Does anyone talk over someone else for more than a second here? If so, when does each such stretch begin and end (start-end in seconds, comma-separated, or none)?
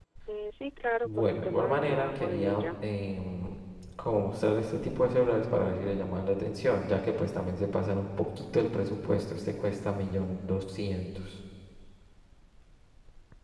1.0-2.6